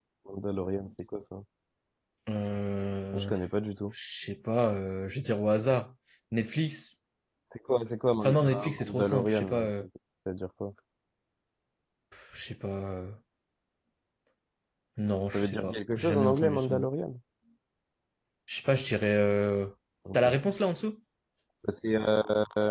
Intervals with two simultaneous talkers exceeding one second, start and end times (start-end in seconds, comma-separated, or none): 8.2-9.7, 15.3-16.9